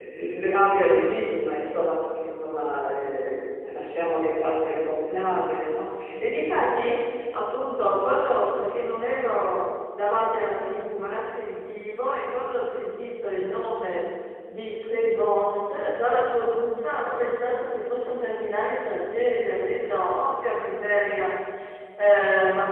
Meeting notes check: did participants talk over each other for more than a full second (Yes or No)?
No